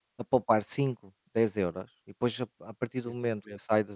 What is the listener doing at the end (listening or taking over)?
listening